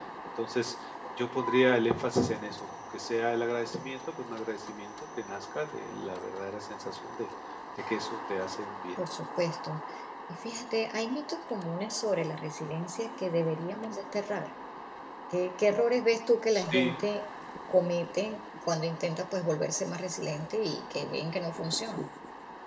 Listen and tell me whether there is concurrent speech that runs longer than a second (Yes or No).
No